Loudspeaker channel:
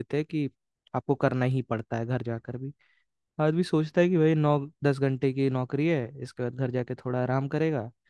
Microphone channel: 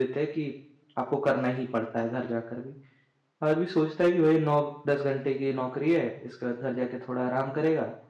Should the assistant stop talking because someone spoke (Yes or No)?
No